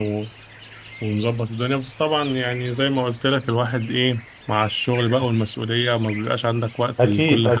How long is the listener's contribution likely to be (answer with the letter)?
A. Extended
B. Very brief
A